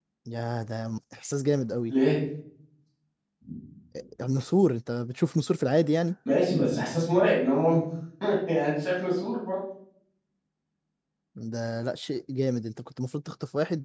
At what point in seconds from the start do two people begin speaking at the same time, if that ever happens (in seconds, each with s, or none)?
none